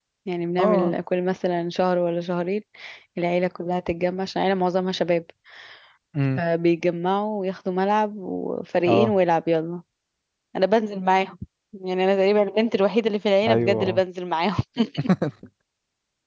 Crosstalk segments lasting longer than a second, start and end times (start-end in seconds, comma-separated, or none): none